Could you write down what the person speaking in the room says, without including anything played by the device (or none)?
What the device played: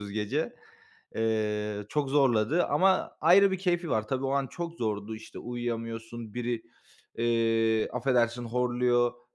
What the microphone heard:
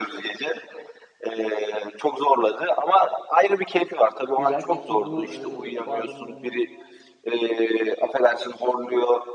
Güzel. Peki bu, eee, bu adamın, hani,